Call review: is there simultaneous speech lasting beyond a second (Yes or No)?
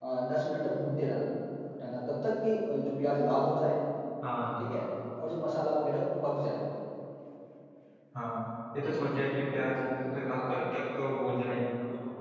No